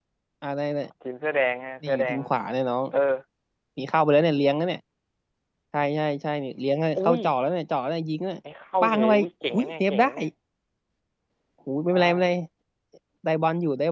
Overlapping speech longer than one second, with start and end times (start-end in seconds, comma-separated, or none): 8.8-10.1